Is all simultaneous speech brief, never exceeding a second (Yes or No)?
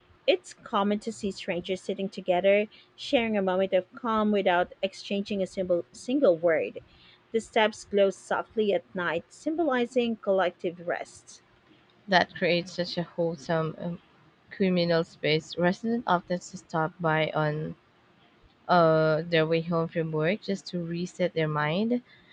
Yes